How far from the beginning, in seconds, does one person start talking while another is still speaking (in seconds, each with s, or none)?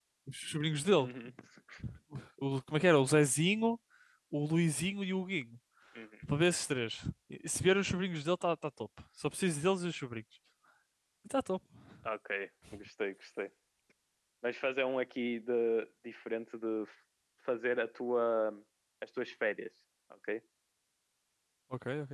none